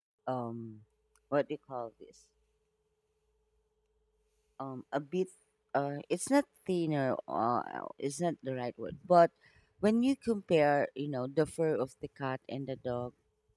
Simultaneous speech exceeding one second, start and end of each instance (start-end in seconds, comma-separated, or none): none